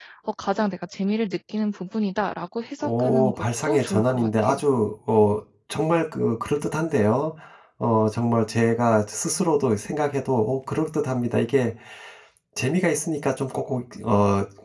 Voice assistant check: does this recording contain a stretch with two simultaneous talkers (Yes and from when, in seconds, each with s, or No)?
Yes, from 2.8 s